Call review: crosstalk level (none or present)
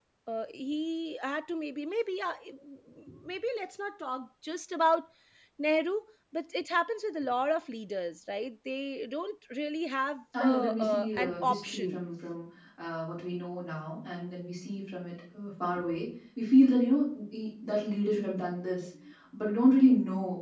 present